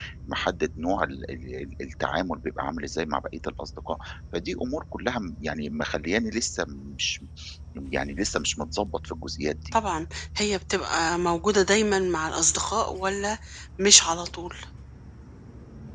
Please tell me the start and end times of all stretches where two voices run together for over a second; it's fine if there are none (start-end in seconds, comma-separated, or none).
none